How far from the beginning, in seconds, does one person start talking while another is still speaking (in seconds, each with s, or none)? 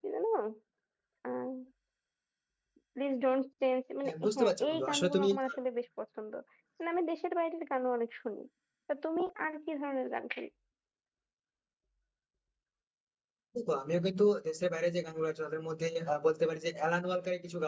4.0 s